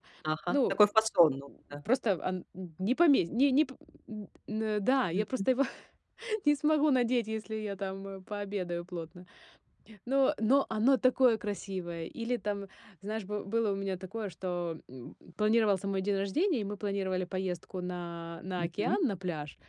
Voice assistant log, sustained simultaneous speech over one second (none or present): none